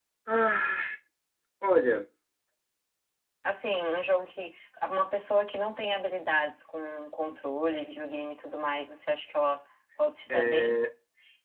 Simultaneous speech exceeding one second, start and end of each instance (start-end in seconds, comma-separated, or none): none